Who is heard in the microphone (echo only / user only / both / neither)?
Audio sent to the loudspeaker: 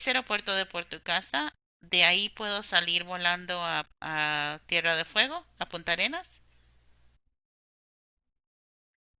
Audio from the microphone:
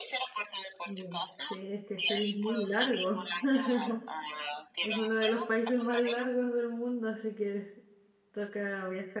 both